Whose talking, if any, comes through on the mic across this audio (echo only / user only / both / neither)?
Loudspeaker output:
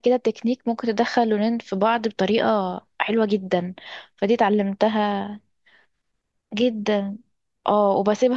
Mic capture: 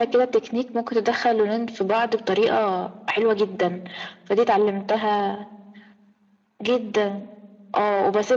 echo only